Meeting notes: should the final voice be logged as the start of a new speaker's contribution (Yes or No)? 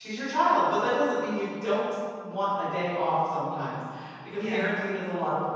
No